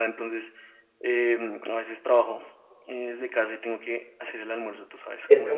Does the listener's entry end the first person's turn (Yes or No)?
Yes